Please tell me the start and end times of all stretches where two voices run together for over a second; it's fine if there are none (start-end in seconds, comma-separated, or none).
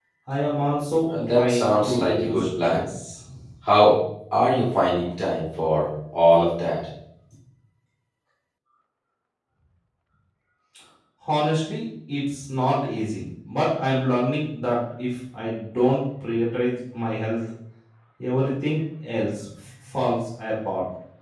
1.1-2.8